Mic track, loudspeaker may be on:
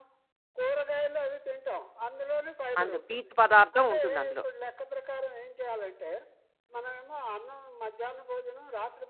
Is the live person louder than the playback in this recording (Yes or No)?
Yes